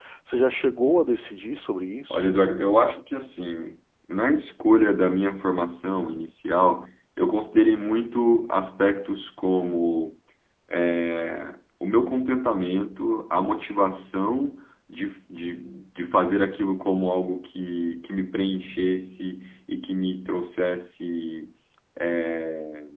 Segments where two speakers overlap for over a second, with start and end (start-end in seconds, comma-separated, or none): none